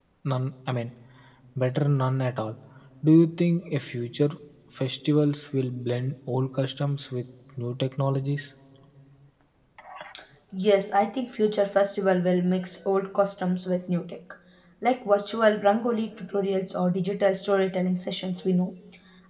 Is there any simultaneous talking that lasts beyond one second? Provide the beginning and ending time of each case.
none

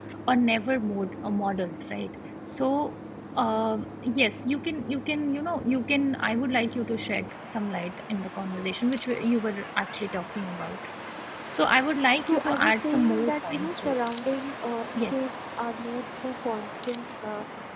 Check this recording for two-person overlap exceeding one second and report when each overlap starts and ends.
12.3-14.0

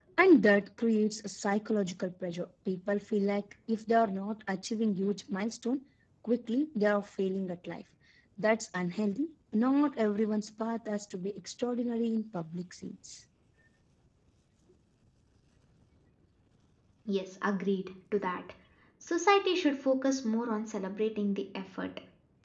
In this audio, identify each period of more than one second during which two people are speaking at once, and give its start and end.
none

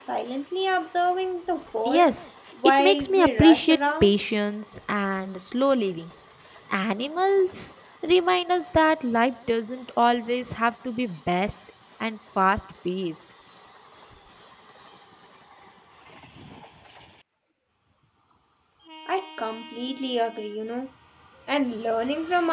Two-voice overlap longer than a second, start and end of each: 2.8-4.2

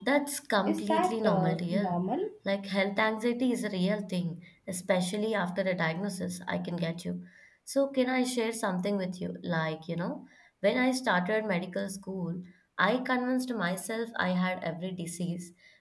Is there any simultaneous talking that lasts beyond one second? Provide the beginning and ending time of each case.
0.7-2.0

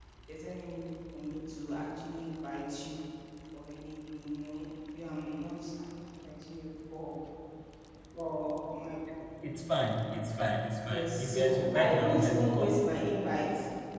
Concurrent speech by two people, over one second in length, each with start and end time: 10.9-13.0

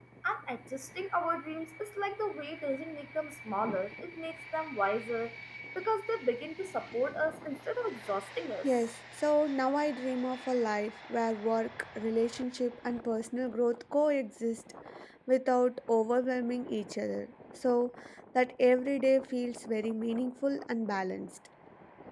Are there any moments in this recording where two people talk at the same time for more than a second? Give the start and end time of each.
none

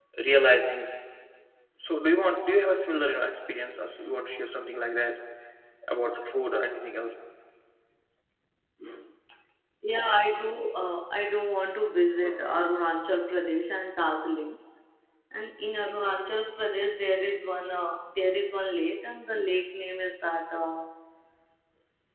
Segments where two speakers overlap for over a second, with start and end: none

